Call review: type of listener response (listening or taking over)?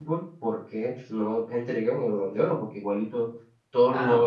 taking over